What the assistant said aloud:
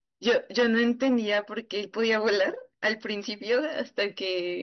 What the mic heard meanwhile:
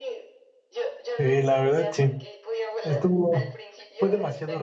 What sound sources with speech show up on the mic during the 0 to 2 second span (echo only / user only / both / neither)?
both